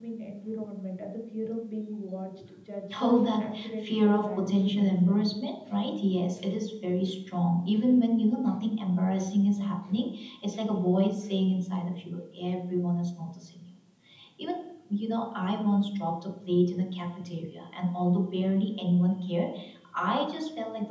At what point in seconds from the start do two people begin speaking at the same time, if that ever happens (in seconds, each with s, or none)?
2.9 s